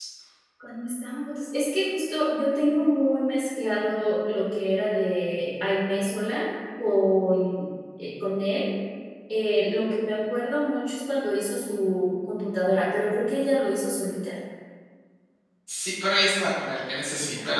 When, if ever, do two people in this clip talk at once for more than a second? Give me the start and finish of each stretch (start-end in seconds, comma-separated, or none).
none